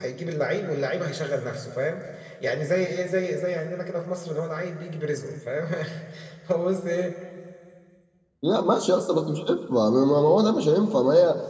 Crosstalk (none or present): none